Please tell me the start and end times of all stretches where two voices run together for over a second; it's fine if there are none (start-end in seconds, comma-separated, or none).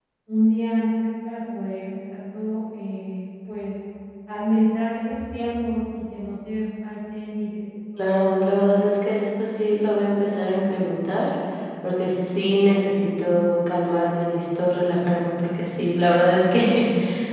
8.0-9.3